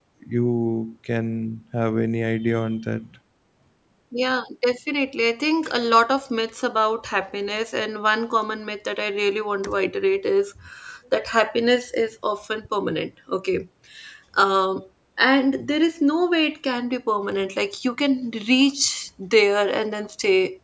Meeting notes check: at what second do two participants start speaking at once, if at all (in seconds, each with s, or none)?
none